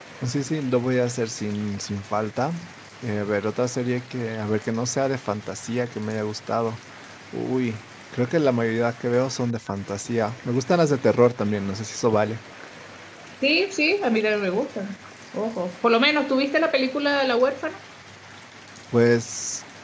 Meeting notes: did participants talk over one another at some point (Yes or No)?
No